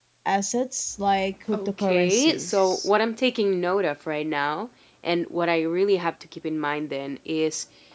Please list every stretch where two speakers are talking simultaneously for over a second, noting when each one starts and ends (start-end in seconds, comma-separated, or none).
1.5-2.9